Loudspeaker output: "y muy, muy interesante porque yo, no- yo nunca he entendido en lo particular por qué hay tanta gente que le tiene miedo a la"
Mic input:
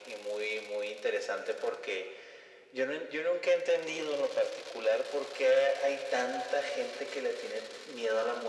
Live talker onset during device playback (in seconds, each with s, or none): none